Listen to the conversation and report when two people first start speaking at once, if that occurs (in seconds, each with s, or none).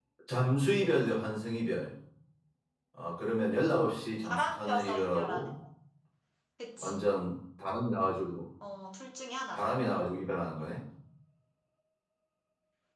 4.2 s